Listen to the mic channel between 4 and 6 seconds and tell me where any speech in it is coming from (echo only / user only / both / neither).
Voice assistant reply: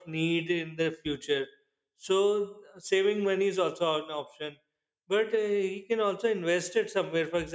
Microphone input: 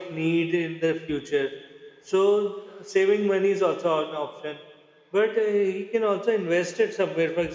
echo only